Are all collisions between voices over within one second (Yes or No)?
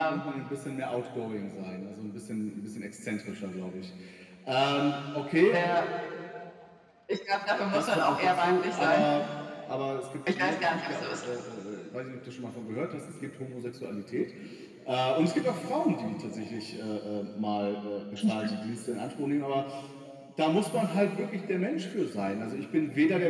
No